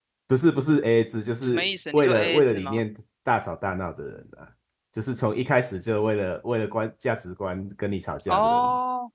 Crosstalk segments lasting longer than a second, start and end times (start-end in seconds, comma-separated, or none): 1.4-2.8